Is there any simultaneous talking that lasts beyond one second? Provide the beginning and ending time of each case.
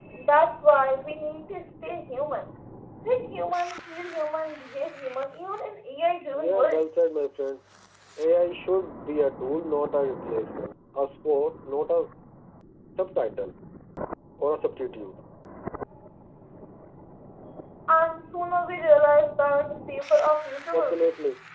none

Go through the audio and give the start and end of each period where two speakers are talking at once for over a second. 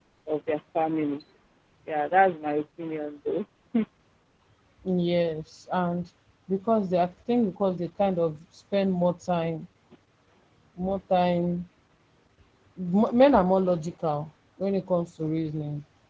none

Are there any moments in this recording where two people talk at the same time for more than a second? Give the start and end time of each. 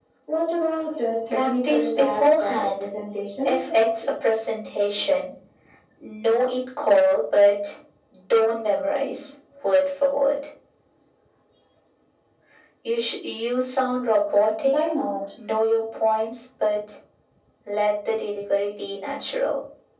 1.3-2.8

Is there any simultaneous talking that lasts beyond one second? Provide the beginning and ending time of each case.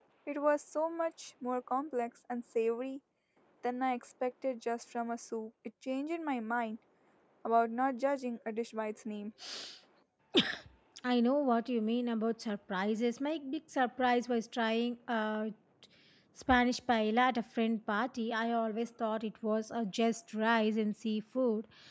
none

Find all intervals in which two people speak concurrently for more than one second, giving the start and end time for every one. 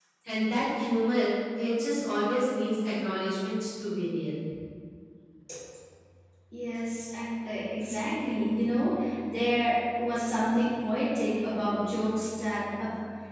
none

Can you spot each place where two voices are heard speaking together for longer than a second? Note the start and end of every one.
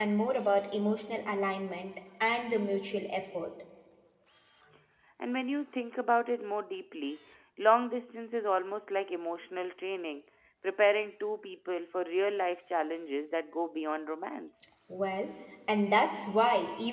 none

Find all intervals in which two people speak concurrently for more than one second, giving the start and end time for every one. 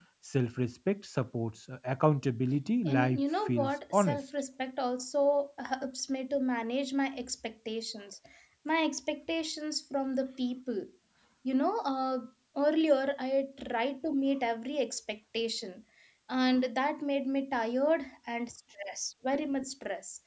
2.8-4.2

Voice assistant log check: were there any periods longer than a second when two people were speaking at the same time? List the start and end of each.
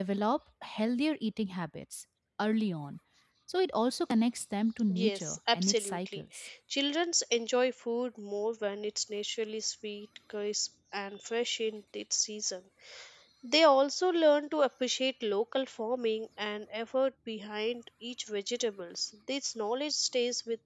4.9-6.2

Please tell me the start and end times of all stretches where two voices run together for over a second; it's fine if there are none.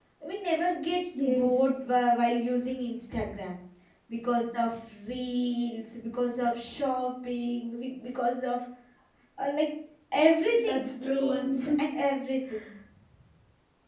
10.6-11.8

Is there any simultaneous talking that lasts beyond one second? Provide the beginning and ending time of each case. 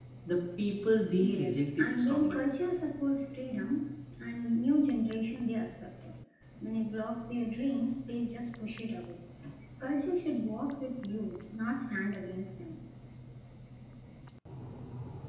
1.2-2.4

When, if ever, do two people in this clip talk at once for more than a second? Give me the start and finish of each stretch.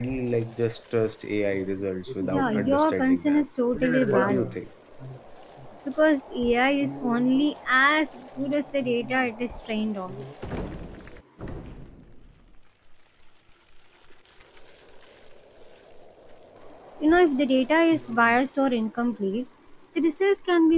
2.2-3.4

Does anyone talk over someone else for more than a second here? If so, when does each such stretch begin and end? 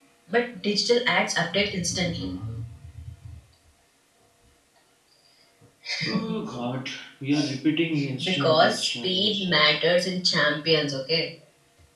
8.2-9.7

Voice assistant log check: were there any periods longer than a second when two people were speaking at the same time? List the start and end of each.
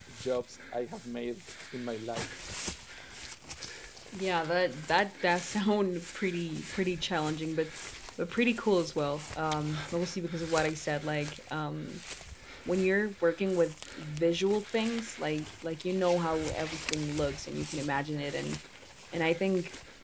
none

